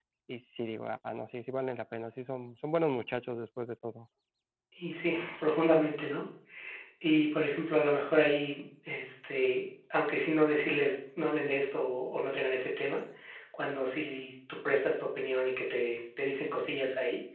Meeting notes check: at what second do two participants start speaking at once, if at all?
none

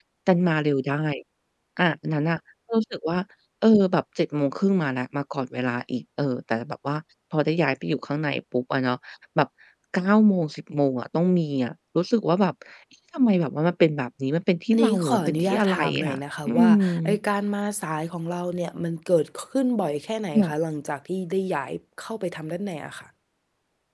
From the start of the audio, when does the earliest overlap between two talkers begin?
14.7 s

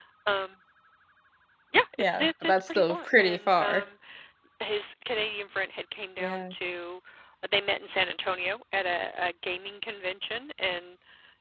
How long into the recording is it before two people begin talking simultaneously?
2.0 s

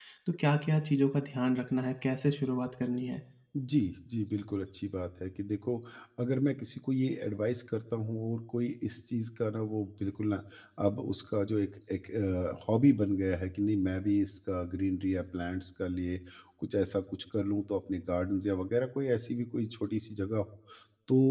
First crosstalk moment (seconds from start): none

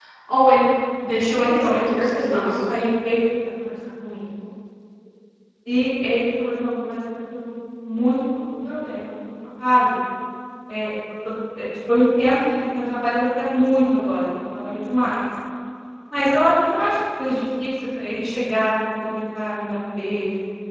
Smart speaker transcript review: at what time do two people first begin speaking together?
1.4 s

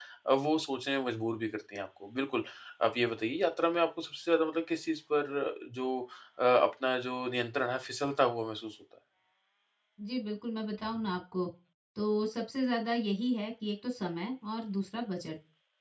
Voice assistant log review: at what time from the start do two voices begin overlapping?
none

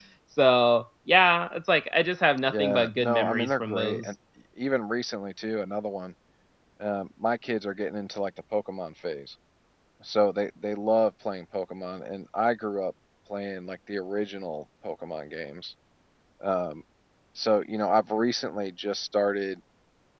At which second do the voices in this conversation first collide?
2.5 s

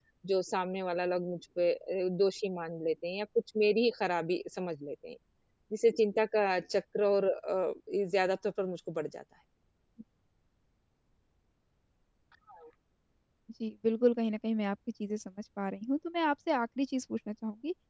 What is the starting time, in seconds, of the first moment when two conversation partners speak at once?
none

